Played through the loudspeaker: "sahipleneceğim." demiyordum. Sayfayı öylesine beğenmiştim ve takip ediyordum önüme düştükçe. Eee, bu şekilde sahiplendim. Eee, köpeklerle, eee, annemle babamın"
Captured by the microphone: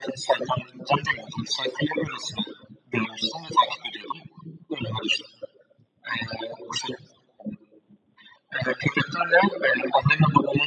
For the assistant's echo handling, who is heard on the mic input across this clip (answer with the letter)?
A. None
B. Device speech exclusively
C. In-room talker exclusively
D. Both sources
B